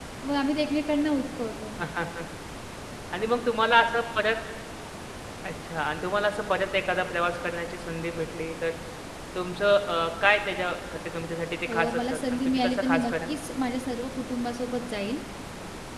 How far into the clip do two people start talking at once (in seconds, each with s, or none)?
11.7 s